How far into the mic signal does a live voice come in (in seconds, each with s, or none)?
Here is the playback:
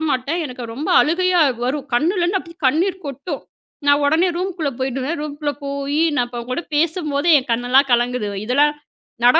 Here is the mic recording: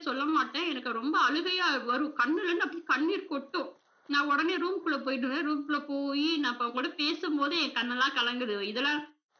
none